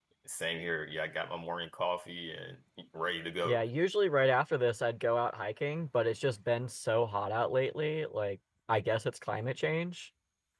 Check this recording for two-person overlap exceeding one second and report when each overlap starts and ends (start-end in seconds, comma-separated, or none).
none